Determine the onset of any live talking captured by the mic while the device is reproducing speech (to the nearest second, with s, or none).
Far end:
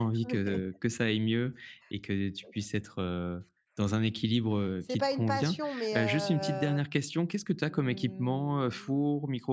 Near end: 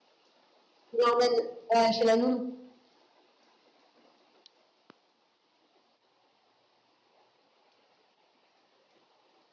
1 s